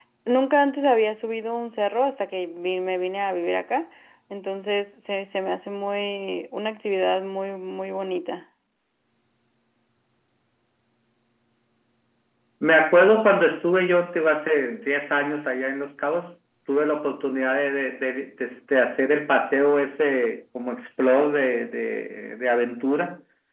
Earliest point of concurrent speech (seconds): none

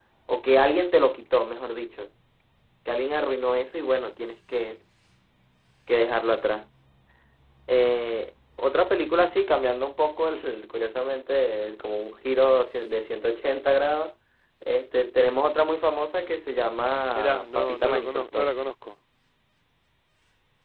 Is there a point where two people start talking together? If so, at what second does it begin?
17.1 s

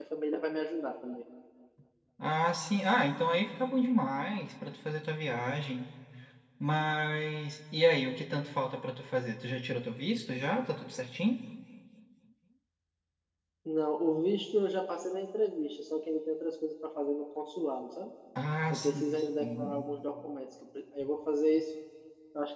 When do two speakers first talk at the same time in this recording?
18.7 s

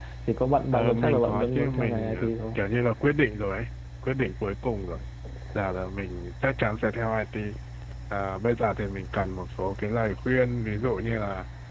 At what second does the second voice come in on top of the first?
0.7 s

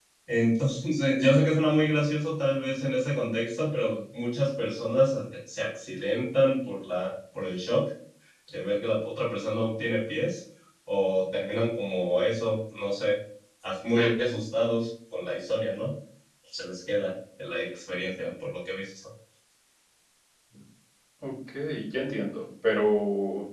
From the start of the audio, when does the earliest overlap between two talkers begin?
none

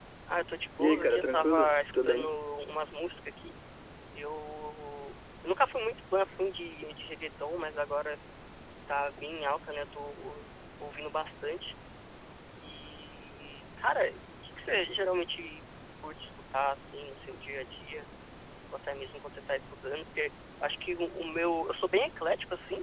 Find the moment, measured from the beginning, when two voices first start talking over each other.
0.8 s

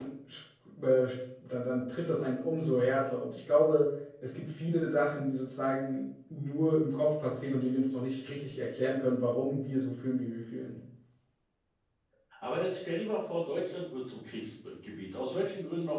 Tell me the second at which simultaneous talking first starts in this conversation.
none

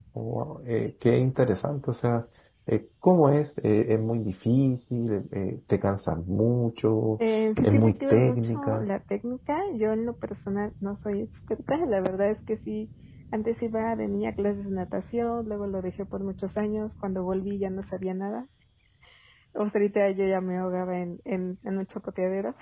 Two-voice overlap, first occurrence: 7.6 s

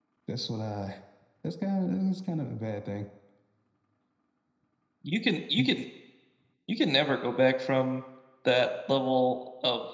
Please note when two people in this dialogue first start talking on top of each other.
none

